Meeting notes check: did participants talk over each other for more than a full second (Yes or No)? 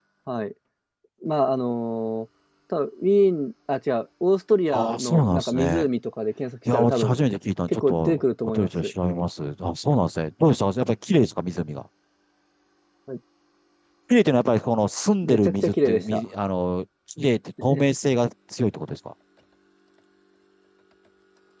Yes